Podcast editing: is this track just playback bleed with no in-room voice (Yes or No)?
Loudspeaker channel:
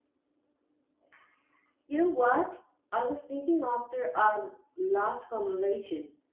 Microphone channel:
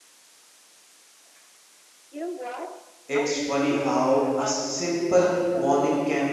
No